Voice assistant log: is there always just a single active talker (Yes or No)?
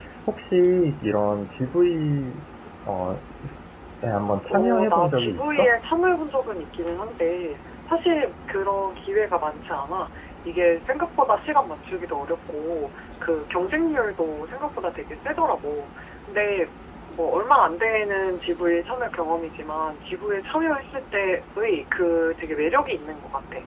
No